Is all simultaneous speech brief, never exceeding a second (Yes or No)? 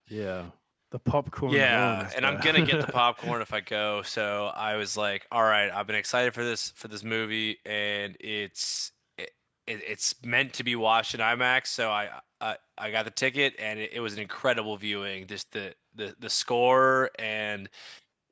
No